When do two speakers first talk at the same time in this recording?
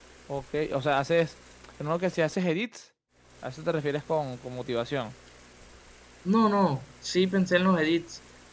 none

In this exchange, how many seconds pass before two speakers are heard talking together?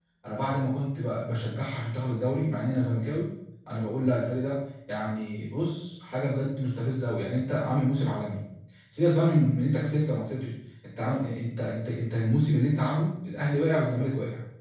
none

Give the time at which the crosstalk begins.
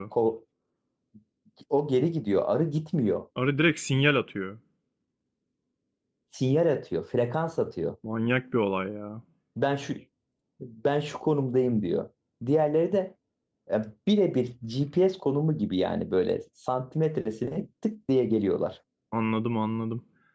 none

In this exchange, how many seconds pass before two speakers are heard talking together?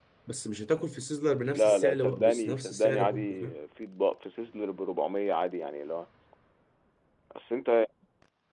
1.4 s

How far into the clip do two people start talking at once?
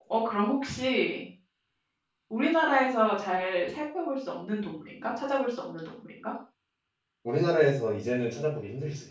none

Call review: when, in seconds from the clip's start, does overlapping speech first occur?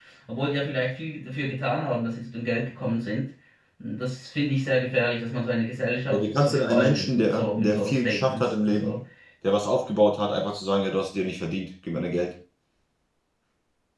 6.1 s

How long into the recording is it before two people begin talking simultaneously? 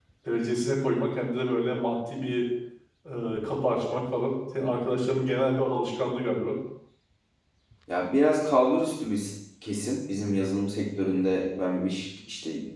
none

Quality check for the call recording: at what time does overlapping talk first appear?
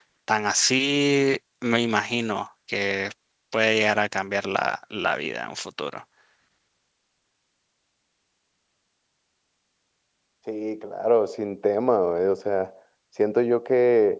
none

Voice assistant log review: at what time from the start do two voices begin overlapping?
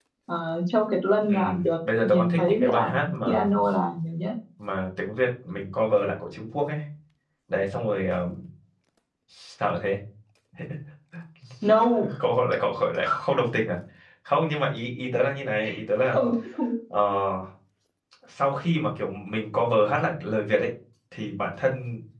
1.3 s

